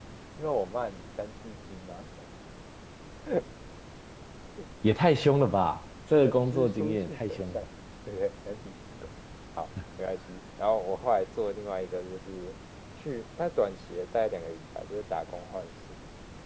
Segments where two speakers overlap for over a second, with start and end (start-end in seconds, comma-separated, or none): 6.2-7.6